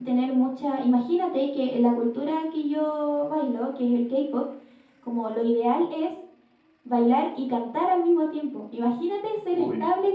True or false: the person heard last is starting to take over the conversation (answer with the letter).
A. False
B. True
A